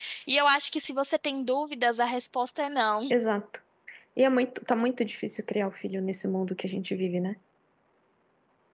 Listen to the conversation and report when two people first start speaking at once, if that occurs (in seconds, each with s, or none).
none